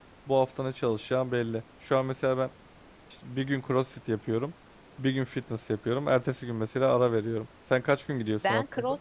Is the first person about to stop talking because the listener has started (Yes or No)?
Yes